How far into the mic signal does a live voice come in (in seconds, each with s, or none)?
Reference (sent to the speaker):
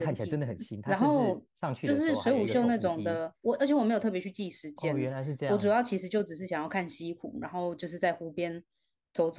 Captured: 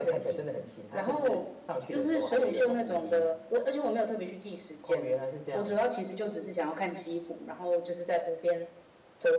none